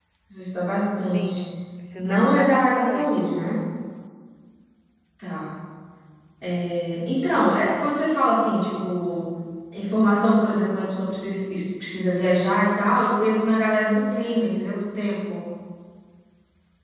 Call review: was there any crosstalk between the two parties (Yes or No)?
Yes